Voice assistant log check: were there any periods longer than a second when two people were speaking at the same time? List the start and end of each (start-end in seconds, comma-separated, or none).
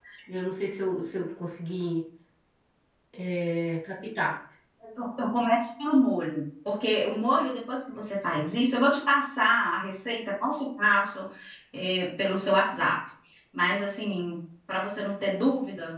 none